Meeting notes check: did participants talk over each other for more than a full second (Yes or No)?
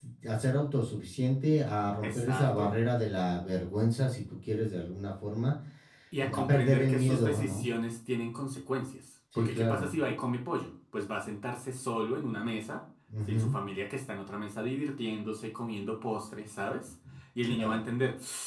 Yes